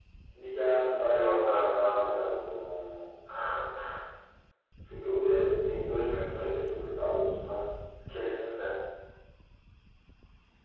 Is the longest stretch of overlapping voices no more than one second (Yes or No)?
No